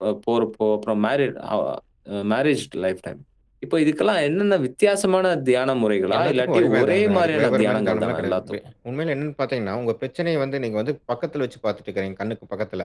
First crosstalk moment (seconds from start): 6 s

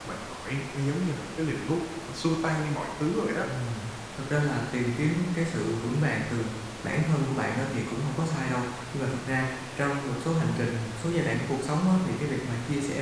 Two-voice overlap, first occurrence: none

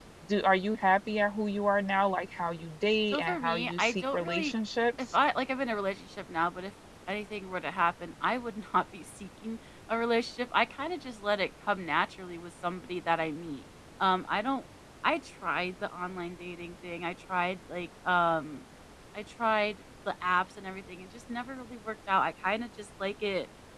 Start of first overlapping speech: 3 s

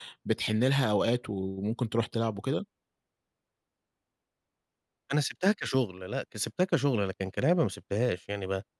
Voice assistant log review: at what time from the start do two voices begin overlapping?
none

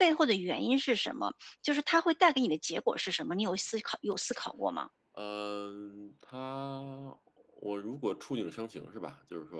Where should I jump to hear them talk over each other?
none

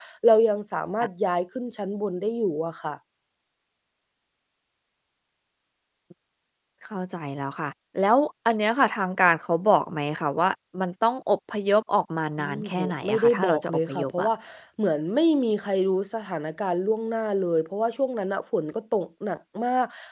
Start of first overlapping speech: 12 s

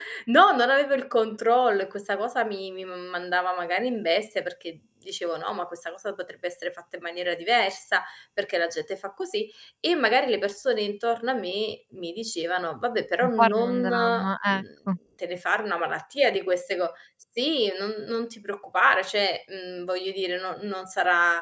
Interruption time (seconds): 13 s

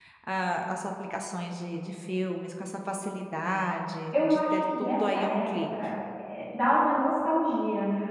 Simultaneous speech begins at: 4 s

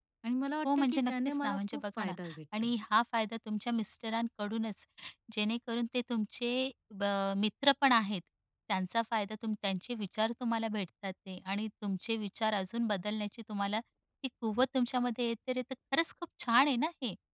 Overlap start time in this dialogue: 1 s

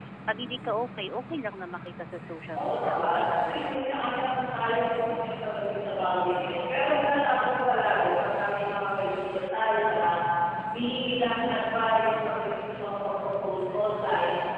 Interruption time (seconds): 3 s

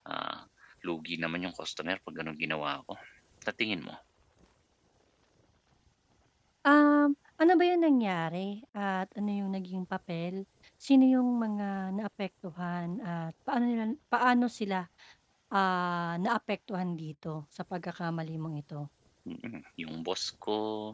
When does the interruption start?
none

